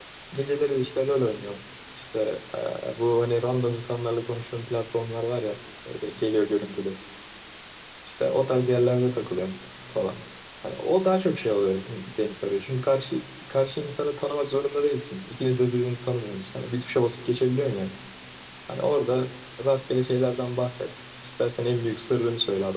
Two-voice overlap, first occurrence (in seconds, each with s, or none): none